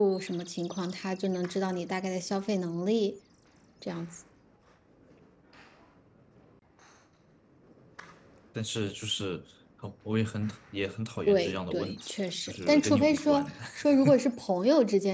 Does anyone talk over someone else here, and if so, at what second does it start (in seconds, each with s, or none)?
11.3 s